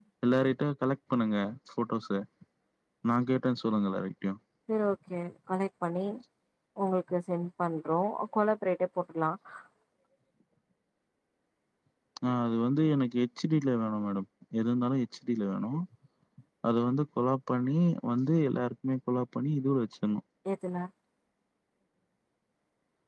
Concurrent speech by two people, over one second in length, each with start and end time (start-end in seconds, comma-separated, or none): none